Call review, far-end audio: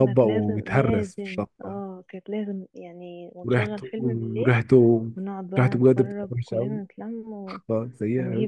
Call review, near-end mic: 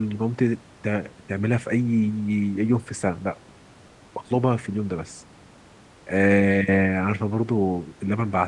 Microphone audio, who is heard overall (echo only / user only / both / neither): user only